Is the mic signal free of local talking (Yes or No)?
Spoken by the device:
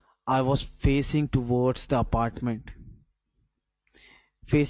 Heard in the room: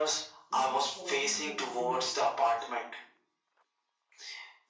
No